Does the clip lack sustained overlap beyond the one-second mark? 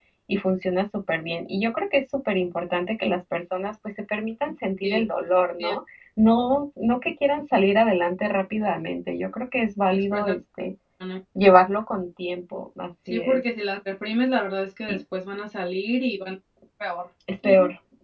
Yes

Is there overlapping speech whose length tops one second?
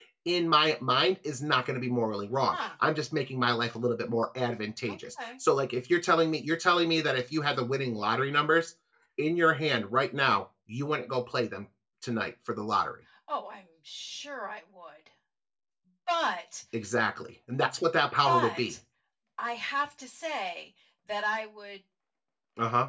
No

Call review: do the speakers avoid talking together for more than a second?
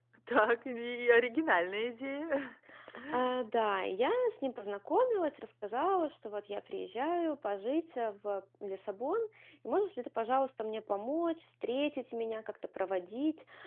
Yes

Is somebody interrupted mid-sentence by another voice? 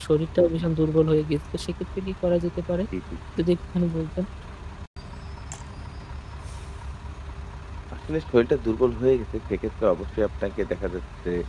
No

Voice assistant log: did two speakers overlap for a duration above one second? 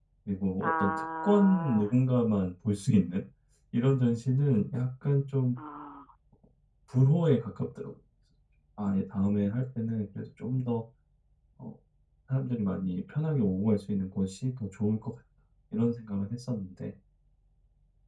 Yes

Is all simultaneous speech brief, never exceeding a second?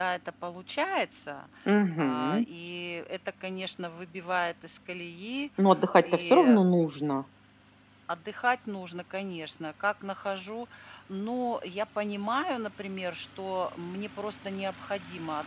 Yes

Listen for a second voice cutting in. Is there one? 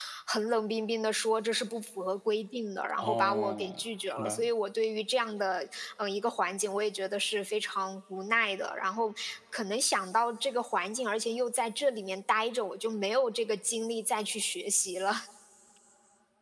Yes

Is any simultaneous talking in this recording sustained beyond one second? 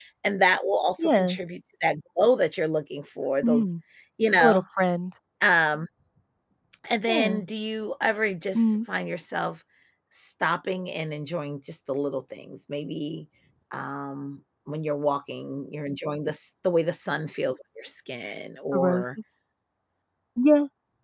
No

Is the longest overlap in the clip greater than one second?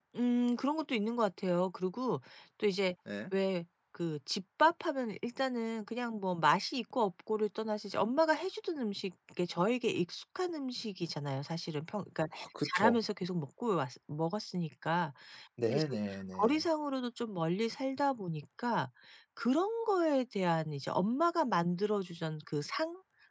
No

